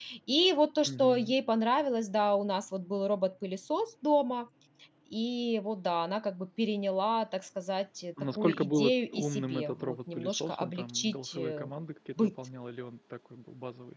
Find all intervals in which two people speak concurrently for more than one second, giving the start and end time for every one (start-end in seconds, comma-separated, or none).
8.3-11.7